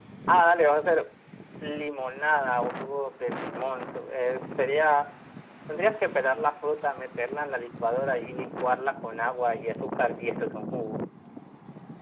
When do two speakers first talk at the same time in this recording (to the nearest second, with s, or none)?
none